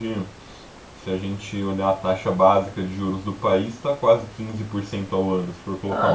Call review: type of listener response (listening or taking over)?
taking over